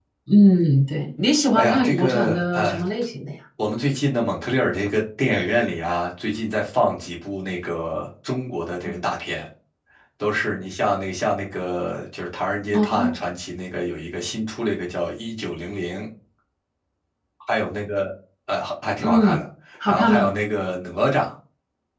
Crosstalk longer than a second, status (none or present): present